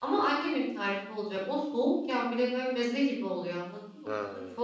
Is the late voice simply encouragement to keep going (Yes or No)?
Yes